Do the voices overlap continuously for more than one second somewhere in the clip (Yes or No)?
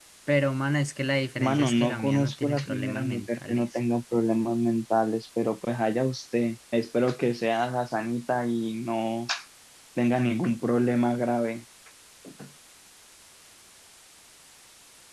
Yes